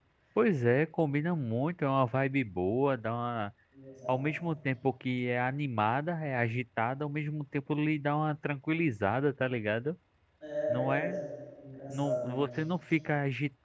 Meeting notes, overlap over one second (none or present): none